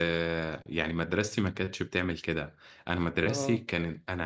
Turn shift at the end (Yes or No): No